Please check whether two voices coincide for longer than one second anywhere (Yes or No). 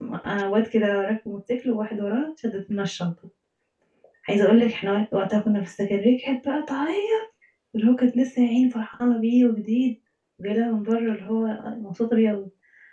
No